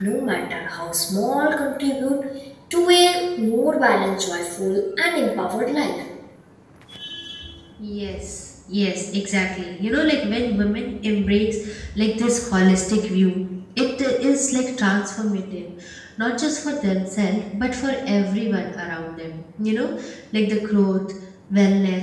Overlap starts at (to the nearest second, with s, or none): none